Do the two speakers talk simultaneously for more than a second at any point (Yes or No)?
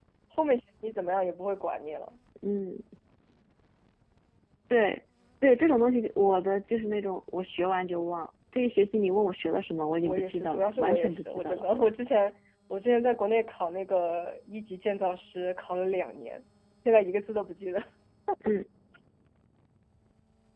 Yes